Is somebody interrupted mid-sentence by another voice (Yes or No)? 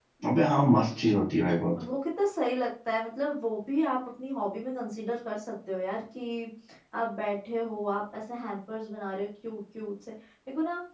No